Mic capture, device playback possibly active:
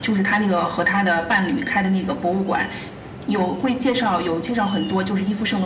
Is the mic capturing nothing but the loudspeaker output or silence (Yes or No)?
Yes